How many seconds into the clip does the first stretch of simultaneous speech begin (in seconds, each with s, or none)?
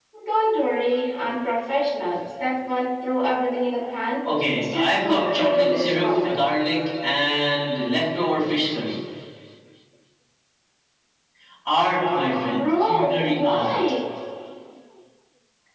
4.6 s